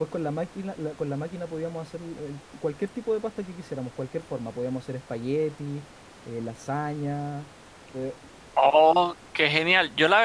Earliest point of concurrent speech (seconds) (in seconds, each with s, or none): none